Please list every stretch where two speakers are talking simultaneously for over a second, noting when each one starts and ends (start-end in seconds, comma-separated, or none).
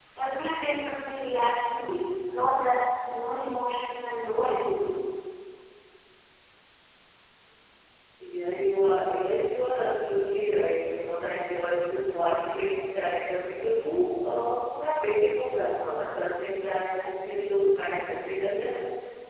none